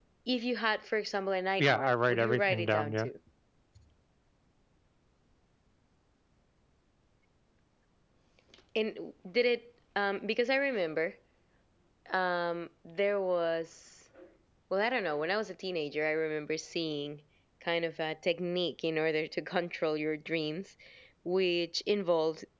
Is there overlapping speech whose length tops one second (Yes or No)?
Yes